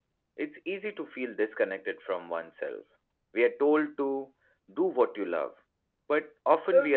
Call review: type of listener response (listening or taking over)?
listening